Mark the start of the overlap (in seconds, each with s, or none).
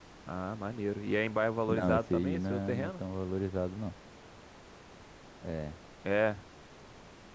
1.7 s